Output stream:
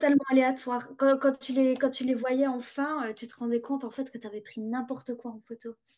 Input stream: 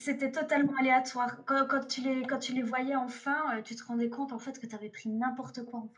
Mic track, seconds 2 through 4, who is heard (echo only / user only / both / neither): echo only